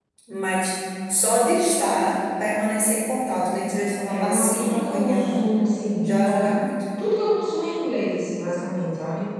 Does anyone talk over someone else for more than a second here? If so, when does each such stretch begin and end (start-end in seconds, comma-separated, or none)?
4.0-5.4